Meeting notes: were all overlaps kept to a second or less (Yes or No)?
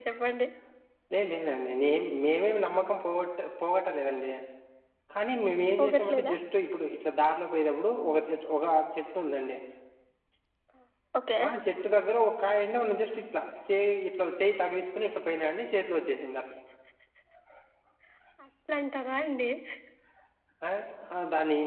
Yes